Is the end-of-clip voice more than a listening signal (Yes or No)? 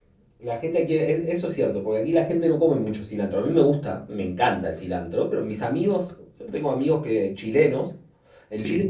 No